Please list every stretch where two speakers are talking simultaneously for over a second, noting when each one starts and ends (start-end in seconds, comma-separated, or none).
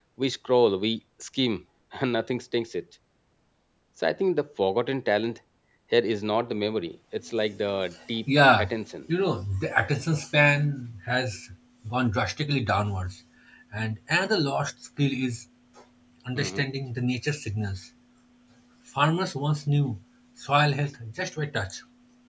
none